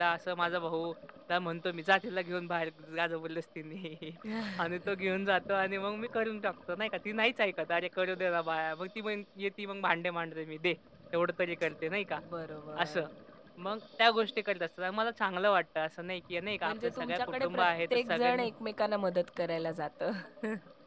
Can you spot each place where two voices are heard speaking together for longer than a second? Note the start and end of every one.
16.6-18.5

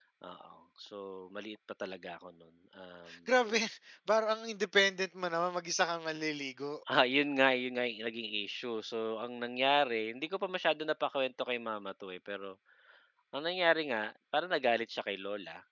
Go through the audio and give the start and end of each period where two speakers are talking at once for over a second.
none

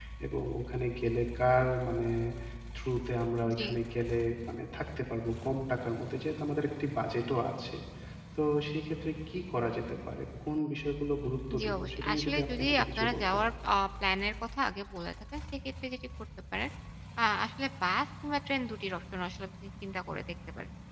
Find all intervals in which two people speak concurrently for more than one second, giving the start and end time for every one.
11.6-13.4

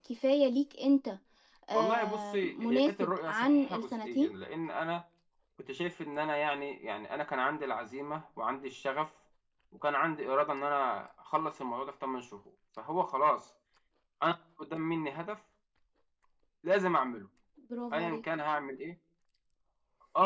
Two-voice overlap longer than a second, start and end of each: 1.7-4.3

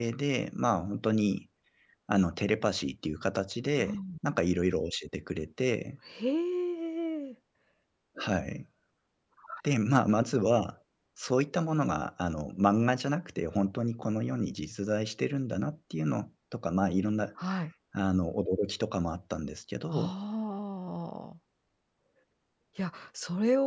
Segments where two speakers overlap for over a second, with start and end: none

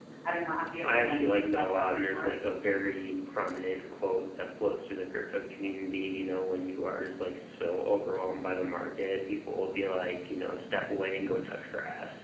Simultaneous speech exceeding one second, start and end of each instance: 0.8-2.3

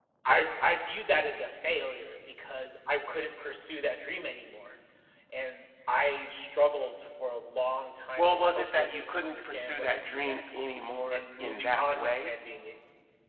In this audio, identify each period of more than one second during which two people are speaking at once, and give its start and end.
8.2-10.7, 11.1-12.3

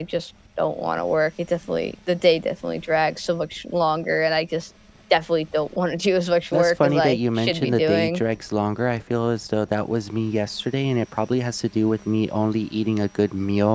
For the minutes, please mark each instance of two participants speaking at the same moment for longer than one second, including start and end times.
6.5-8.2

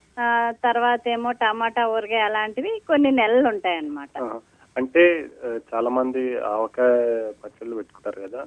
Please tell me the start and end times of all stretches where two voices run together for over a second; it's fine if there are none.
none

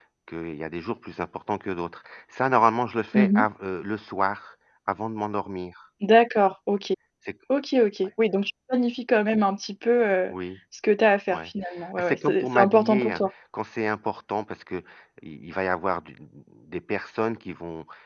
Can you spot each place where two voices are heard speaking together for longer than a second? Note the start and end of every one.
12.0-13.2

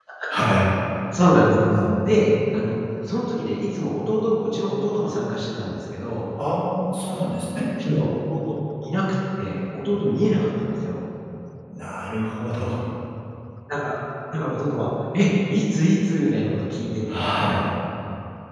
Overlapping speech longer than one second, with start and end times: none

